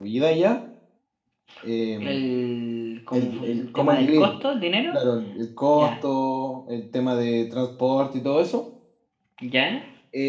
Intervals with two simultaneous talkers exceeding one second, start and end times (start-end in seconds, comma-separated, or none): 3.1-4.3